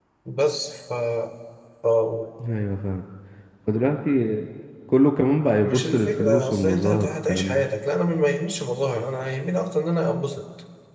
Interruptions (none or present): present